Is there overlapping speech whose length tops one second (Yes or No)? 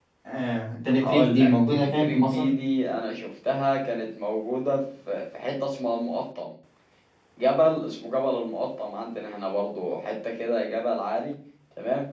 Yes